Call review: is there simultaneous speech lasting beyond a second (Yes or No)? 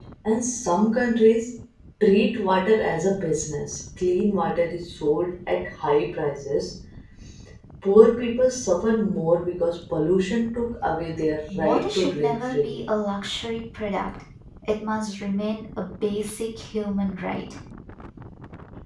Yes